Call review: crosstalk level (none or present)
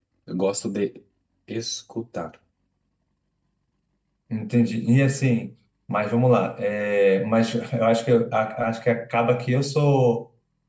none